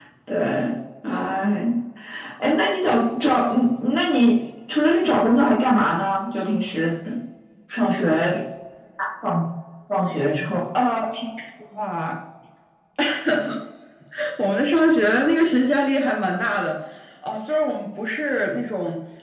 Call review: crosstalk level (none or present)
none